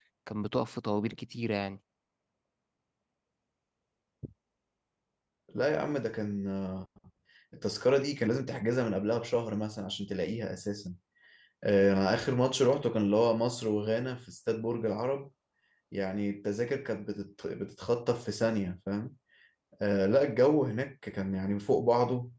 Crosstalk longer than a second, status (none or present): none